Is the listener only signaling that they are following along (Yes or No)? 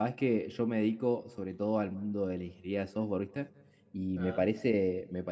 Yes